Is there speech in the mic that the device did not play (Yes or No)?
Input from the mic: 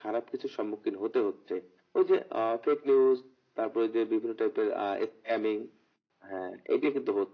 No